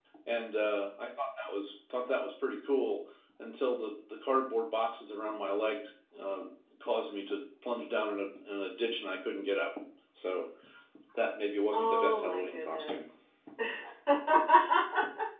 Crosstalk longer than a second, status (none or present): present